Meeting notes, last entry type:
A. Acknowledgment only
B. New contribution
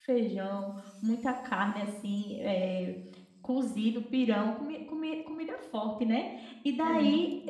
A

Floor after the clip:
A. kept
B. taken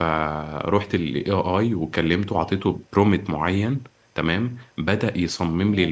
A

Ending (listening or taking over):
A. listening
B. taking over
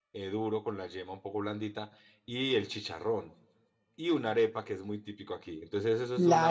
B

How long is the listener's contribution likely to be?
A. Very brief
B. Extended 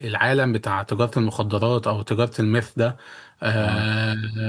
A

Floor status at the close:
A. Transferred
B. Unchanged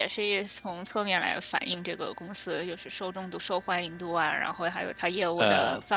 B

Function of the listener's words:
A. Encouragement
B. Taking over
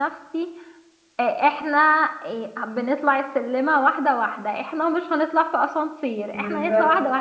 A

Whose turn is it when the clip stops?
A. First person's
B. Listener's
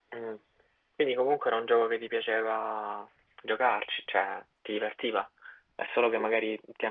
A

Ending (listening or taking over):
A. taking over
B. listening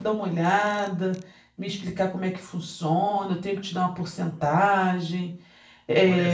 A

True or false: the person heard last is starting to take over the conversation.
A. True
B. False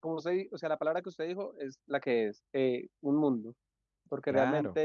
B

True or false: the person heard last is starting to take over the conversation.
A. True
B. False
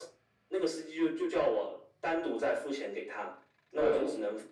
B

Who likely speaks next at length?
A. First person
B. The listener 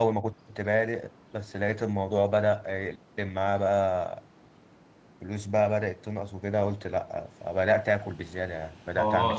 B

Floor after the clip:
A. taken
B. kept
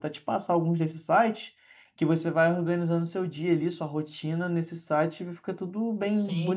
A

